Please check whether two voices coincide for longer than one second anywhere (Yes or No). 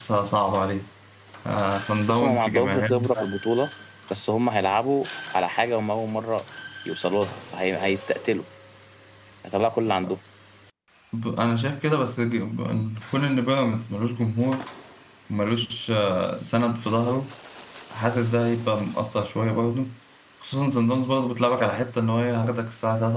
Yes